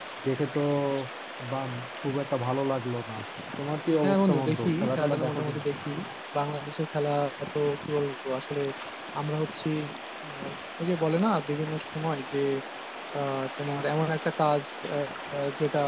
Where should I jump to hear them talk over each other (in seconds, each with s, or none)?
4.0 s